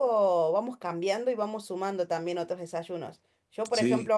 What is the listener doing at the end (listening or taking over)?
listening